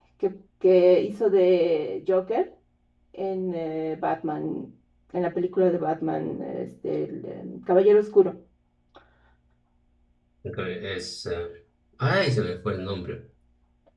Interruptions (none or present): none